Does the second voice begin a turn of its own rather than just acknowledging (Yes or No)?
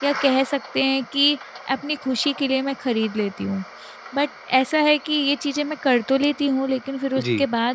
No